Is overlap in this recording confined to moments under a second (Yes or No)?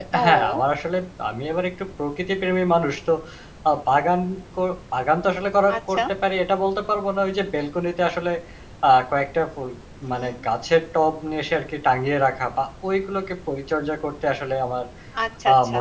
Yes